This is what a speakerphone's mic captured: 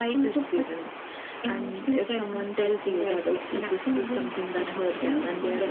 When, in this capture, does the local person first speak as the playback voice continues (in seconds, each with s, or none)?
none